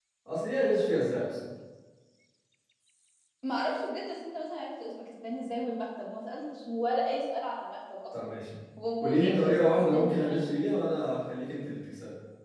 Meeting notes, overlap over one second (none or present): present